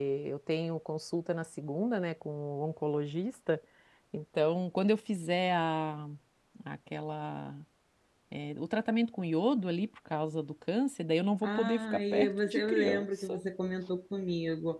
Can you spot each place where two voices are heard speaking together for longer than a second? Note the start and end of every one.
11.4-13.4

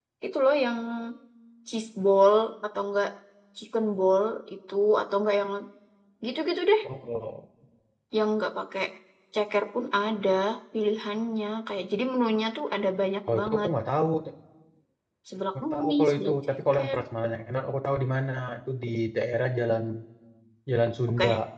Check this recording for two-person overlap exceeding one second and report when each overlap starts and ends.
15.6-17.0

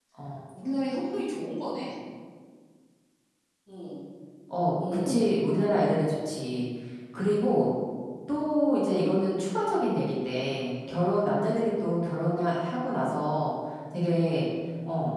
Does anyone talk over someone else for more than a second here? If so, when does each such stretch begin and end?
none

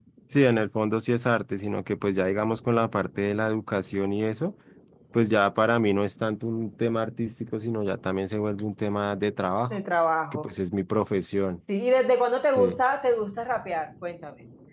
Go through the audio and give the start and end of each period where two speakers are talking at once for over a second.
none

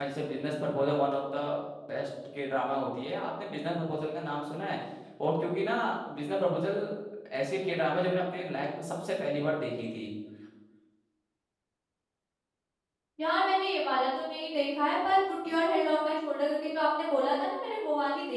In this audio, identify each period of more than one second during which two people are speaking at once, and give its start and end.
none

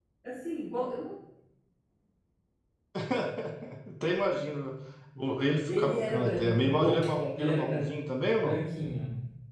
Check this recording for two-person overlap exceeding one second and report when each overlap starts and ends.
5.7-7.0, 7.4-8.6

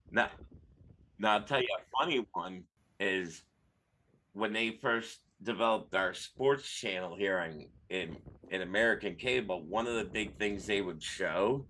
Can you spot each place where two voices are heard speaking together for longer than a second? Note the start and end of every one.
none

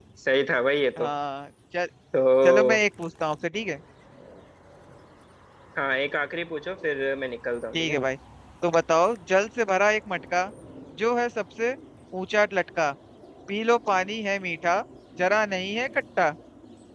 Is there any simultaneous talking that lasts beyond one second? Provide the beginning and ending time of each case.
none

